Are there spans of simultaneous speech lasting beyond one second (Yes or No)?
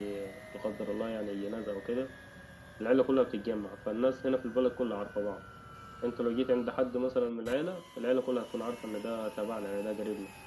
No